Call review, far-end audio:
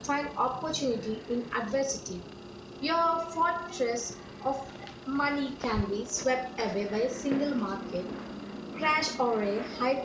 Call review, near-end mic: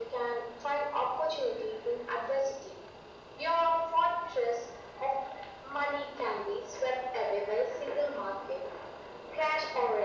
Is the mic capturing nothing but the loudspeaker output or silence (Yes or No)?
Yes